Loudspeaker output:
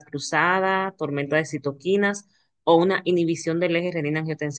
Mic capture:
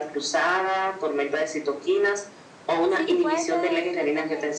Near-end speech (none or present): present